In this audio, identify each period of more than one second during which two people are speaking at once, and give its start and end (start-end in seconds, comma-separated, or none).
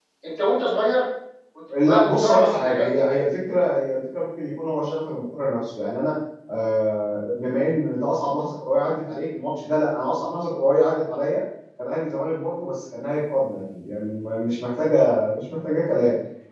1.8-3.0